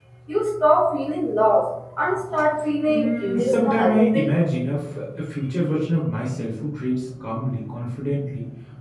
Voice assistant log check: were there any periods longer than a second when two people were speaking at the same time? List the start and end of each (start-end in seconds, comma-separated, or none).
2.9-4.3